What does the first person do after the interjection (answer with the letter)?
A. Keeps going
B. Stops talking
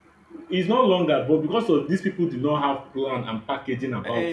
A